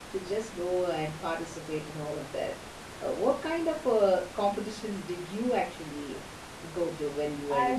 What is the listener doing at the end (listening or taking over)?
taking over